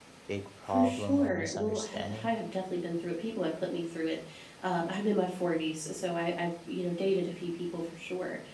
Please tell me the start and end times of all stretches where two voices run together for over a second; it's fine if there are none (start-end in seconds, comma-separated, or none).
0.6-2.3